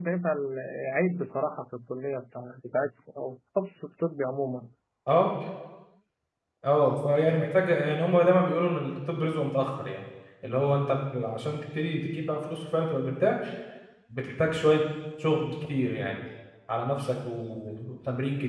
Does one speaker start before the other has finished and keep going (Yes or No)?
No